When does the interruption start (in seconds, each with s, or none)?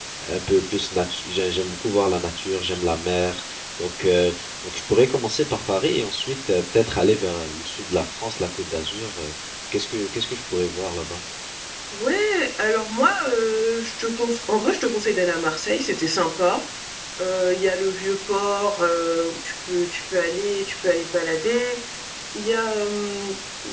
none